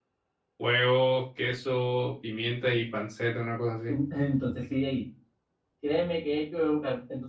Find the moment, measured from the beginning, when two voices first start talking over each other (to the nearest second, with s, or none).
none